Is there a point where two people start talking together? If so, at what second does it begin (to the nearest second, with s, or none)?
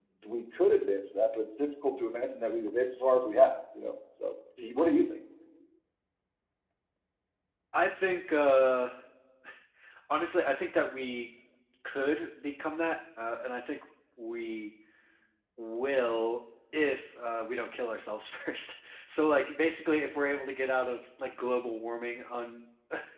none